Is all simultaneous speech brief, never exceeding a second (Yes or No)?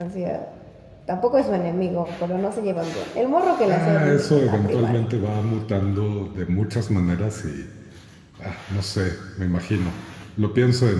No